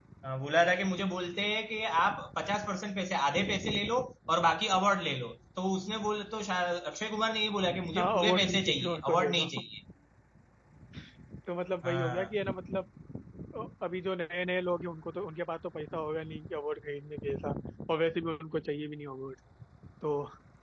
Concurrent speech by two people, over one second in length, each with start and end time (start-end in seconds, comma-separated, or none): 8.0-9.5